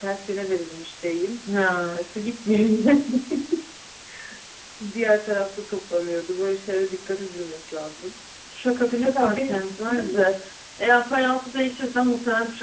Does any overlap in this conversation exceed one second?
Yes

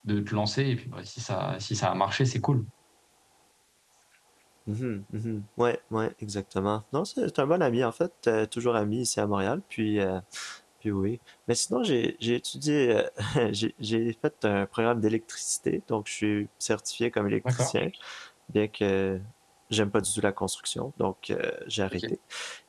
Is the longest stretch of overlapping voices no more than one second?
Yes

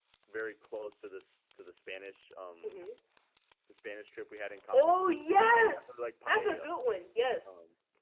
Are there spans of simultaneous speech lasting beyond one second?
Yes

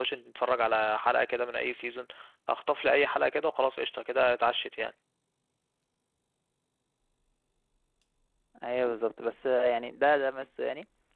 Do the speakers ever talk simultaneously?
No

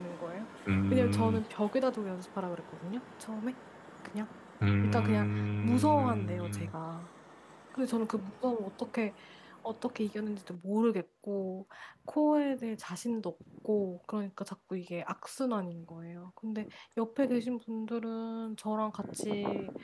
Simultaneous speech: Yes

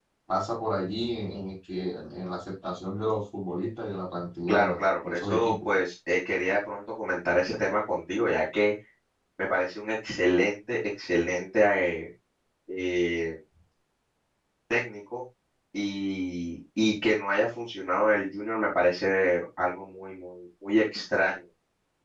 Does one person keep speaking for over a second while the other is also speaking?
Yes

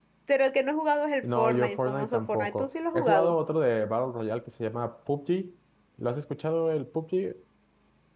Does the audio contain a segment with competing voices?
Yes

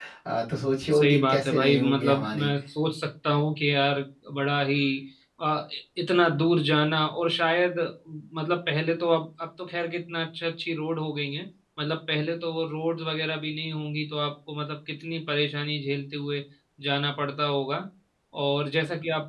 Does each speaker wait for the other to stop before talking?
No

